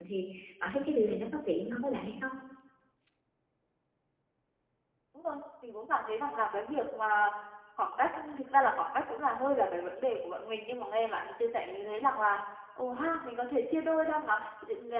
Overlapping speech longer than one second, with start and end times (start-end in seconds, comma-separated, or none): none